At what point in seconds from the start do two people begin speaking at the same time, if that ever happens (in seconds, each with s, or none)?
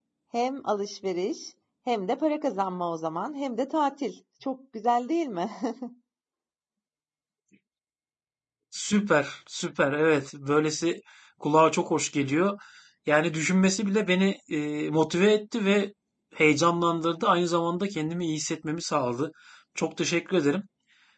none